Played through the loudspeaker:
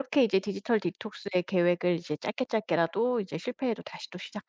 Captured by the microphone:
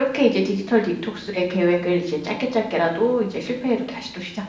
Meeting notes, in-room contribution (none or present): none